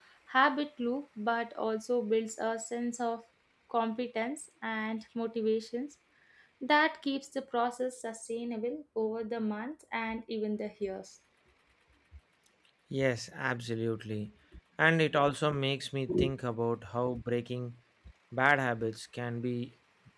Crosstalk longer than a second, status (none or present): none